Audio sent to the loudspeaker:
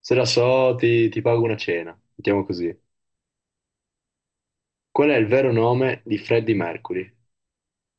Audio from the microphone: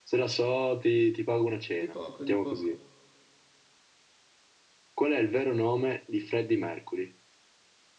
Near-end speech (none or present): present